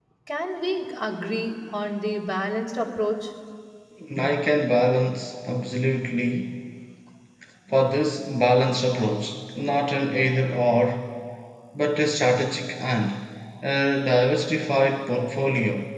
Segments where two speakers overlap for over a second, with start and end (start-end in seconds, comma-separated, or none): none